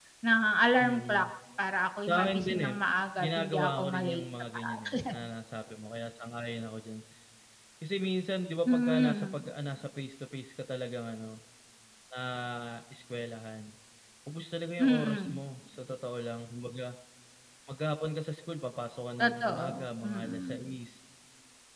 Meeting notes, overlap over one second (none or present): present